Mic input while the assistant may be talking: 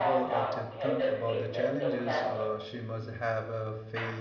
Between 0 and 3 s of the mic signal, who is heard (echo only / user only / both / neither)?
both